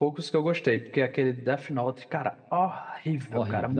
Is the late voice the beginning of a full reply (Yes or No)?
Yes